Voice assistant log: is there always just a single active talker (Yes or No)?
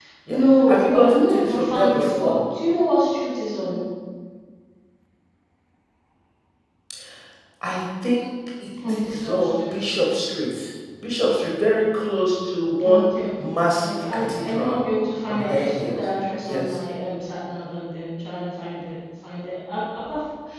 No